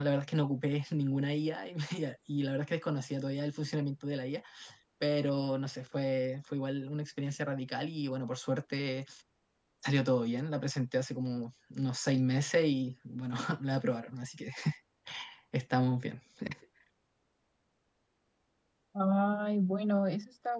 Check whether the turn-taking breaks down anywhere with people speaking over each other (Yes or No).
No